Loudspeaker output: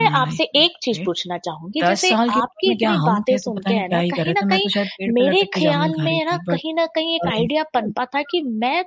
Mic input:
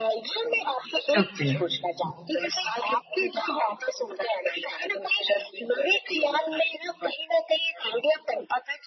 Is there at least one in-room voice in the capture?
Yes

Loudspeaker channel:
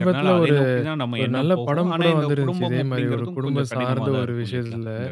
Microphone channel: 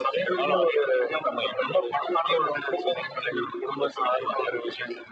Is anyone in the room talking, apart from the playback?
No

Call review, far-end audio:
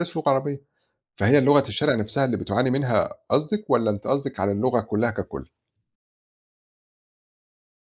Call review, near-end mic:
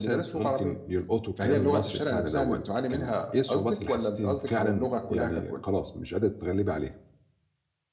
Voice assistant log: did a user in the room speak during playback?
Yes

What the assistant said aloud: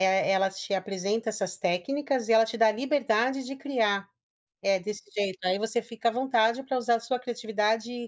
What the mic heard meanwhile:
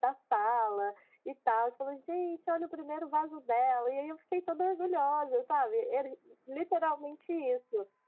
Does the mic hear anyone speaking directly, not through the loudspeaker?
Yes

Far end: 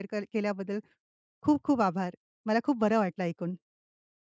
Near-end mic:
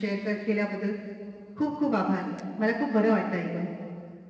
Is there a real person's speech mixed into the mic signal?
No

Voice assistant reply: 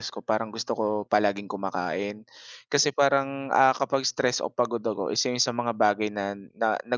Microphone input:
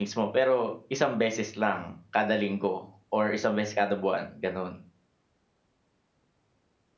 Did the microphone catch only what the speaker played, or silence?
No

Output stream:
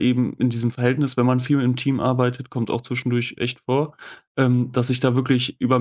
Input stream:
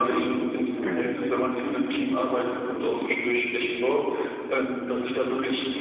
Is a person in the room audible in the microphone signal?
Yes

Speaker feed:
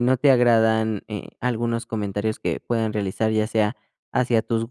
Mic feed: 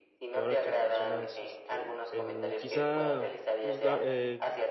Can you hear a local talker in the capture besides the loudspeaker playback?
Yes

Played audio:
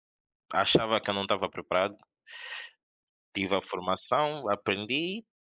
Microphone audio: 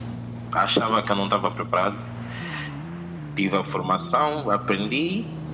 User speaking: No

